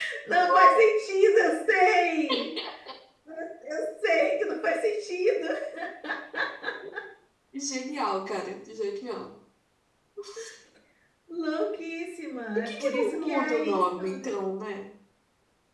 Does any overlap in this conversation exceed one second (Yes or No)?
Yes